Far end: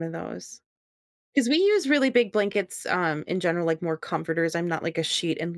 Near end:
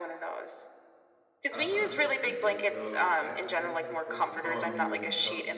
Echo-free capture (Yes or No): No